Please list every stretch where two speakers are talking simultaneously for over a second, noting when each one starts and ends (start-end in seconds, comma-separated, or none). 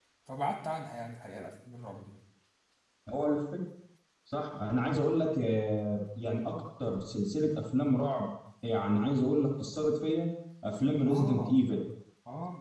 none